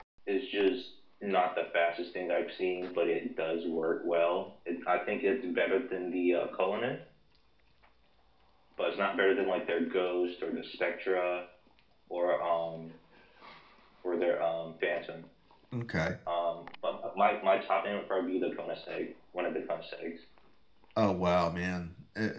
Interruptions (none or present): none